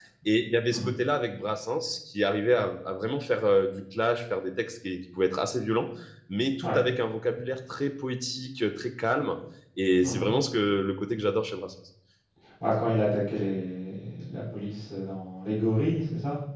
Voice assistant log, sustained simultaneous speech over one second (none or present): none